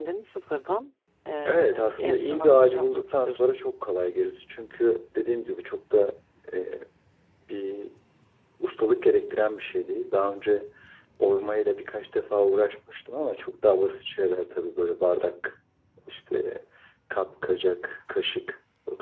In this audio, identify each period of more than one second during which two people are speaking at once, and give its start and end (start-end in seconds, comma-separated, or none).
1.5-3.4